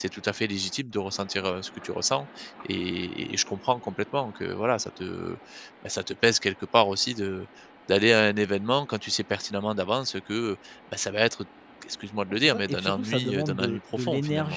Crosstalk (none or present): present